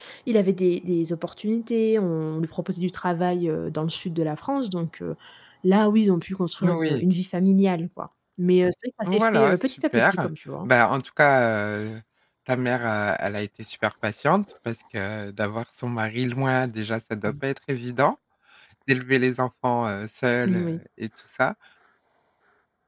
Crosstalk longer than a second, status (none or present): present